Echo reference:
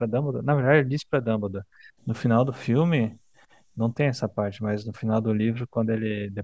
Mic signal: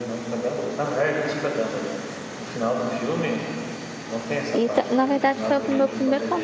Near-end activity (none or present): present